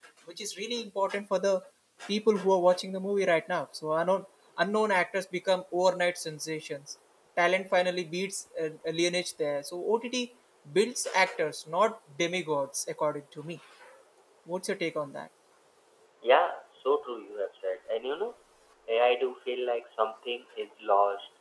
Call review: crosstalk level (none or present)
none